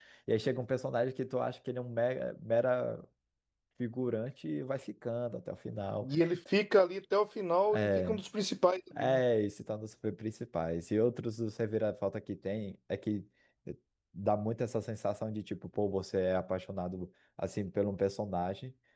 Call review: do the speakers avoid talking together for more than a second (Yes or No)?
Yes